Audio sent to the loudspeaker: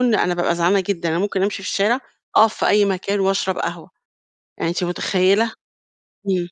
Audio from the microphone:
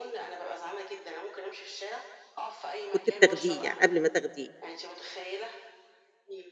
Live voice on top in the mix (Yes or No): Yes